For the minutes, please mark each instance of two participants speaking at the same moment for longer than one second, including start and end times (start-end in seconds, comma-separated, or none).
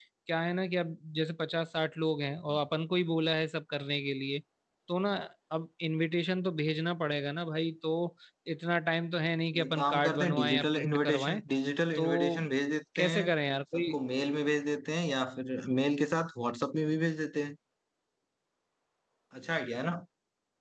9.5-11.4